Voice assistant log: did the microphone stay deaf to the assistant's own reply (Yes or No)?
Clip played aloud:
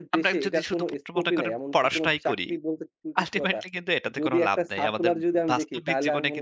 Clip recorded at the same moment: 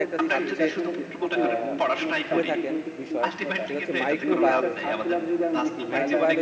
No